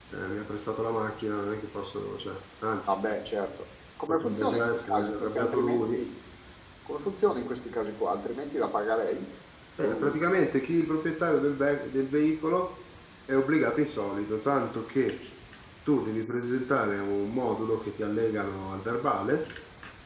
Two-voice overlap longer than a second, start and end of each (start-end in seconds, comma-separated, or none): 4.1-6.0